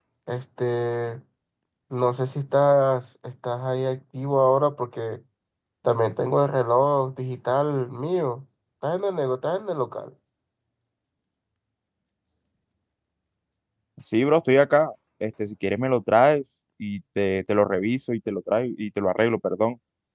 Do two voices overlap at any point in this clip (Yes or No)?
No